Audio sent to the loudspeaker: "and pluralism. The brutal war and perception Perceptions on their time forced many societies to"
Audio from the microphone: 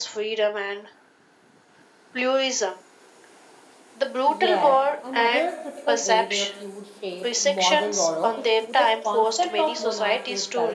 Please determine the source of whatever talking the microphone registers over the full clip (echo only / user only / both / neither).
both